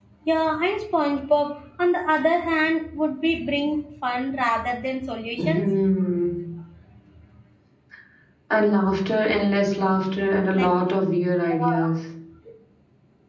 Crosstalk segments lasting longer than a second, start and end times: none

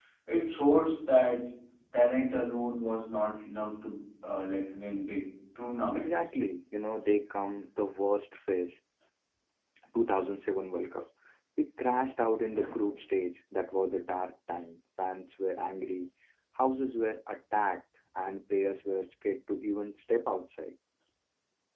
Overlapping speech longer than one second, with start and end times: none

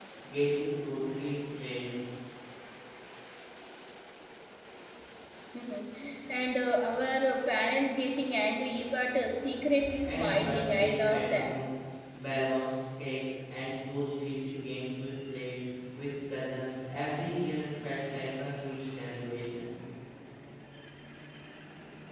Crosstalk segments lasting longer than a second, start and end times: 10.0-11.6

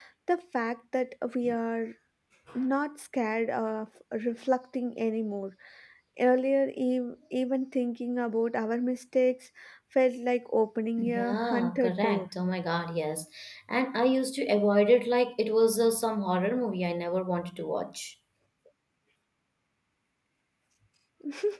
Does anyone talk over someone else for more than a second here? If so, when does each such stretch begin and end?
11.0-12.3

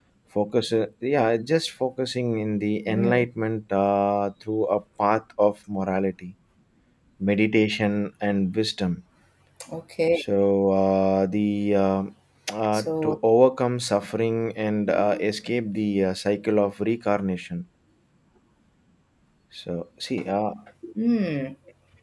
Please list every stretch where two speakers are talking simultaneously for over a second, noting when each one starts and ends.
none

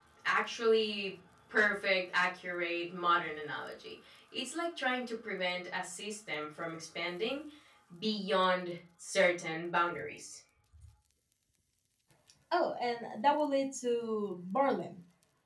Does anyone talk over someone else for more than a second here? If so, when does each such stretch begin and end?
none

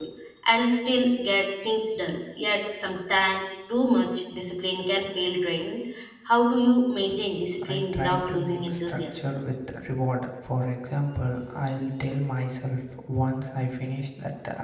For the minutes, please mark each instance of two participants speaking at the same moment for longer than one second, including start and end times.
7.7-9.0

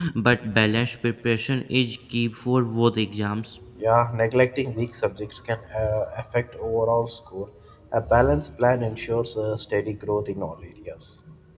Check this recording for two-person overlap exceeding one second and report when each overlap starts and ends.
none

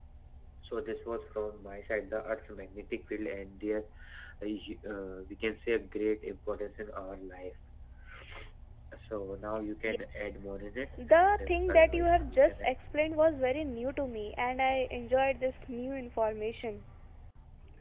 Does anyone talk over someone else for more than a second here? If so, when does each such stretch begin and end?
11.1-12.7

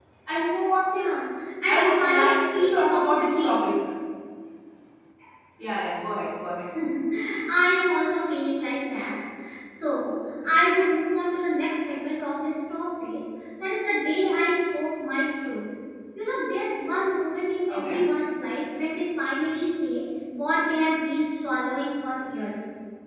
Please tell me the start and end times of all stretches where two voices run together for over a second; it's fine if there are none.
1.7-3.6

